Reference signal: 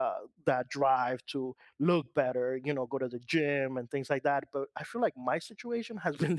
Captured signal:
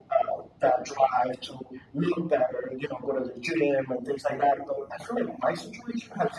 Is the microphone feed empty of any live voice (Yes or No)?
Yes